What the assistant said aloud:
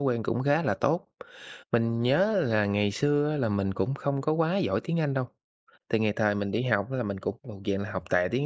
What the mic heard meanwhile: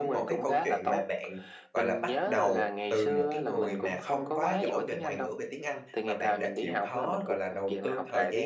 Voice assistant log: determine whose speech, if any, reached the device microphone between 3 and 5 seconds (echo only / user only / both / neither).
both